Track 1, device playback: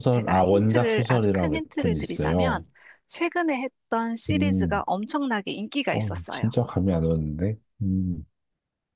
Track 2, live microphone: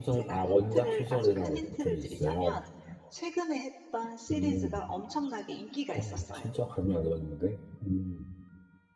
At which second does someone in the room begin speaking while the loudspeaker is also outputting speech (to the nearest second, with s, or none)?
none